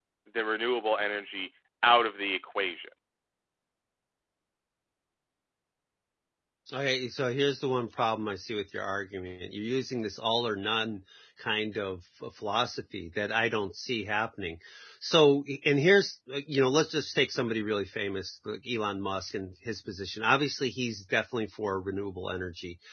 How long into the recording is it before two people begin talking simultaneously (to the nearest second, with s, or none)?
none